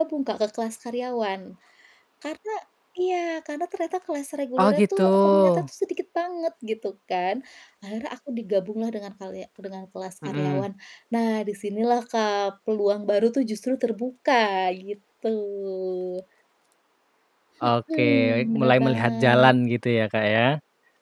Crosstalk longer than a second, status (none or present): present